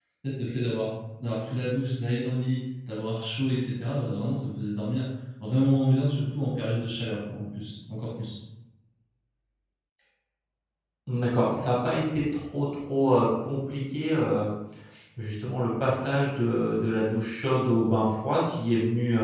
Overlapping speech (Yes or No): No